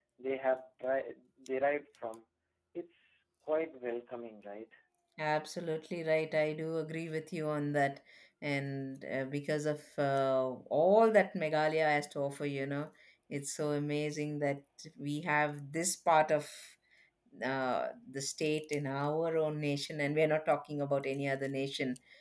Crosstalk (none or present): none